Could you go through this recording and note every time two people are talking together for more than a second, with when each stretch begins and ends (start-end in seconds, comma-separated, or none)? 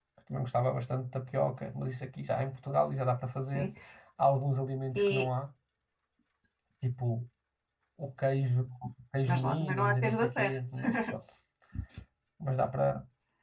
9.2-10.6